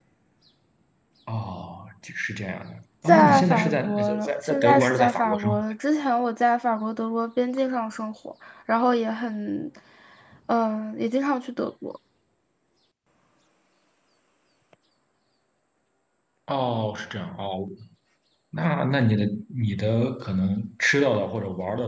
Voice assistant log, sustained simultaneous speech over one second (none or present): present